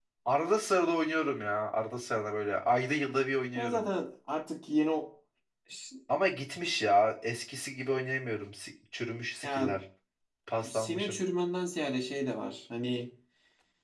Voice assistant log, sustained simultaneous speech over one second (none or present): none